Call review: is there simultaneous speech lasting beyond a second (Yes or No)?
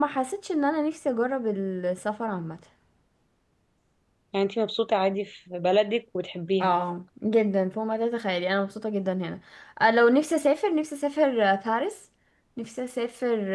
No